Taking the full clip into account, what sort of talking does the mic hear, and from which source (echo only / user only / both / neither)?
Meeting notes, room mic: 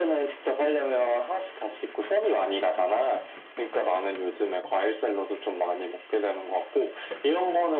echo only